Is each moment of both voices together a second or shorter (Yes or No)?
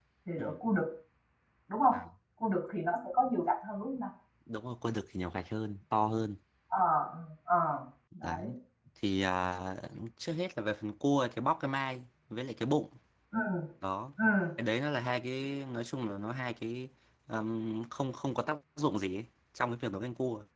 Yes